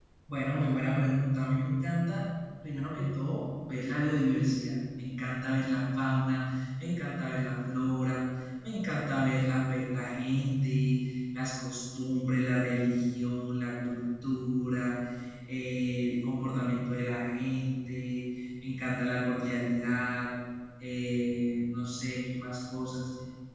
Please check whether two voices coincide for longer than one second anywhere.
No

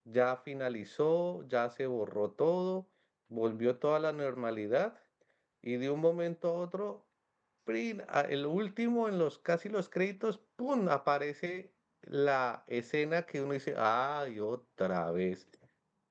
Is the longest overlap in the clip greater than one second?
No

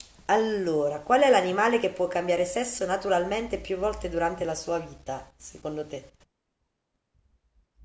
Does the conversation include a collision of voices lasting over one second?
No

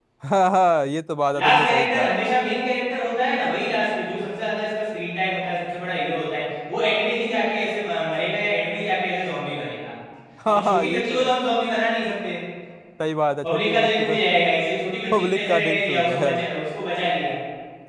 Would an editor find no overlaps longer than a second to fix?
No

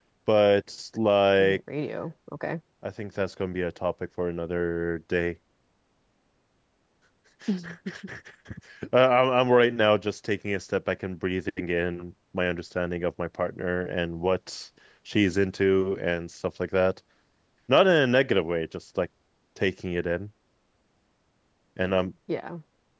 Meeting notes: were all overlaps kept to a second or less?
Yes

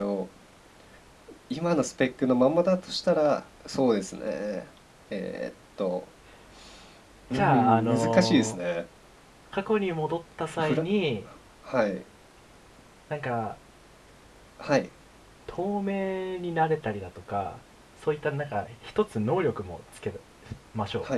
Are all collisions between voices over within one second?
No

